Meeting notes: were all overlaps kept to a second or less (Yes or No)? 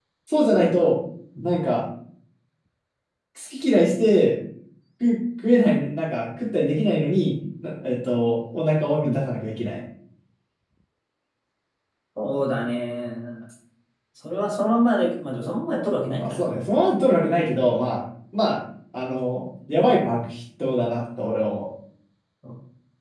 Yes